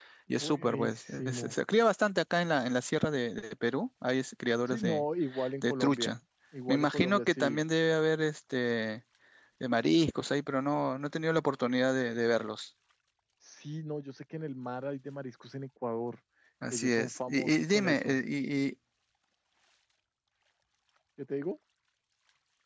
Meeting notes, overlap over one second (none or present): present